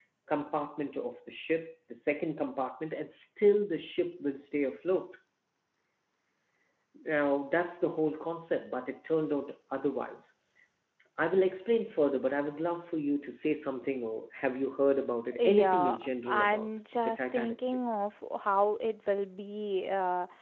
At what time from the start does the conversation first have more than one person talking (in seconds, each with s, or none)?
15.3 s